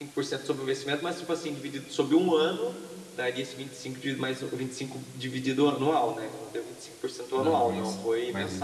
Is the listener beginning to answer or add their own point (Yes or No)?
Yes